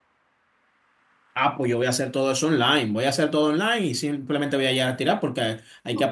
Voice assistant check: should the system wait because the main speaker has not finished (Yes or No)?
Yes